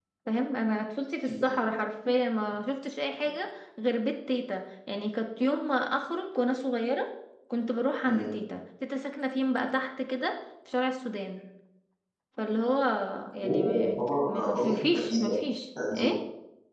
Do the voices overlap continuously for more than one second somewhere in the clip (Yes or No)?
Yes